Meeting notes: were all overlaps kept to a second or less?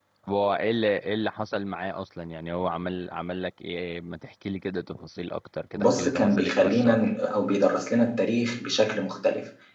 No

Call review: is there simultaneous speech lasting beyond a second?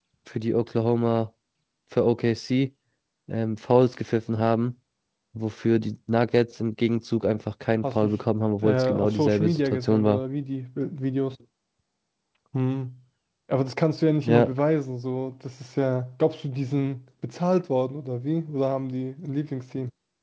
Yes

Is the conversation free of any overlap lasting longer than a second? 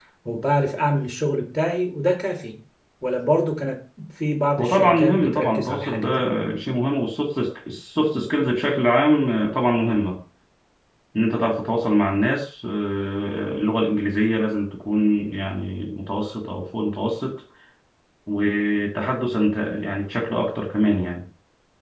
No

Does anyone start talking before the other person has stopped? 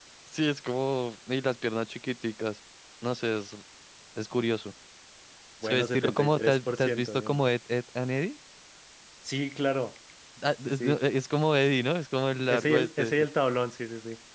Yes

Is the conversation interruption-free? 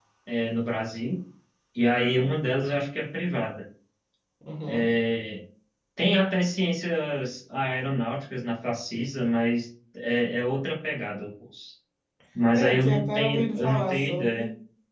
No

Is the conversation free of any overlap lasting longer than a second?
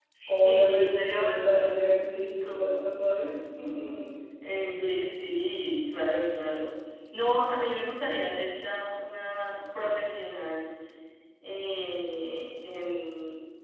No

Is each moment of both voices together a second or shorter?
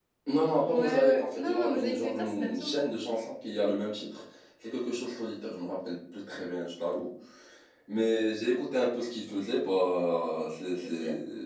No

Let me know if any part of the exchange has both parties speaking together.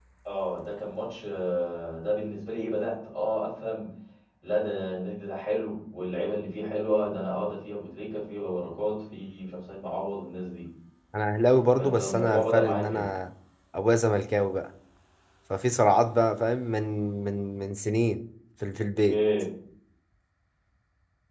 Yes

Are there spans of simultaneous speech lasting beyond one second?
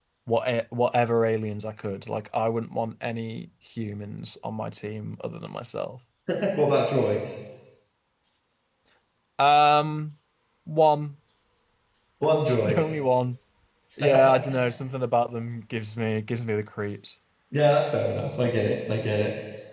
No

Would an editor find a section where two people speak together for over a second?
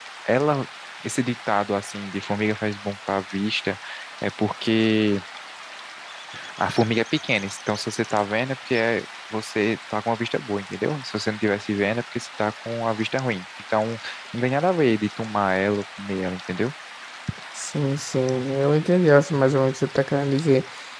No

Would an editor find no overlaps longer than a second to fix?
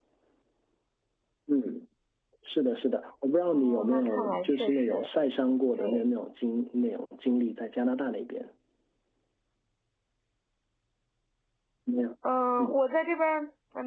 No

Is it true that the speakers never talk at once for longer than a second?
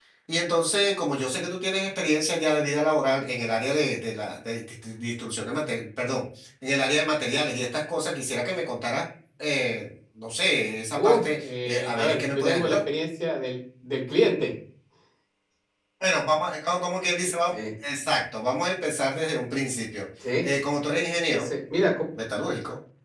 No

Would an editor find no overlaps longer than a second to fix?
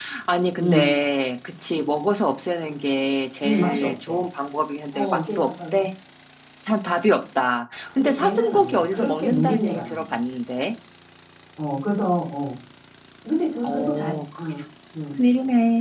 No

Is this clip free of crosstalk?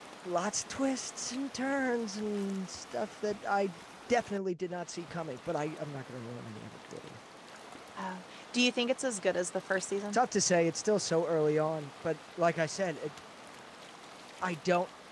Yes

